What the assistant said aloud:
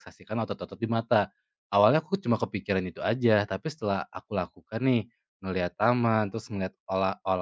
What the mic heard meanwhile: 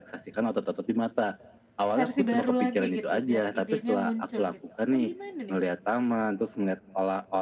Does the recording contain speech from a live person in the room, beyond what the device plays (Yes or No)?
Yes